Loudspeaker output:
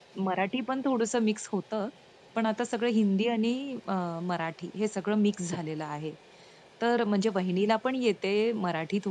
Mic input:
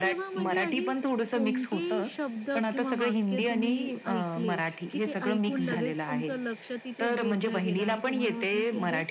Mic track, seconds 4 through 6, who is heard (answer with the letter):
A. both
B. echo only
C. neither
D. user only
A